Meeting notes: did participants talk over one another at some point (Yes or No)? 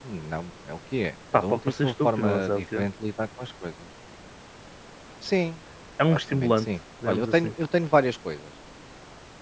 Yes